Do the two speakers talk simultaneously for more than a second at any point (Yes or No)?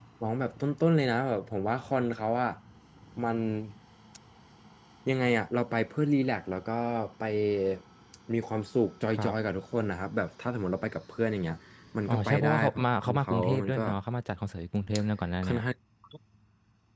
Yes